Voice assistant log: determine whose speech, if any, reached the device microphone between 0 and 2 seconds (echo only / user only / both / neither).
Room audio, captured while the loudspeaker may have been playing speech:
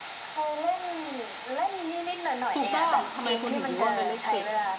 echo only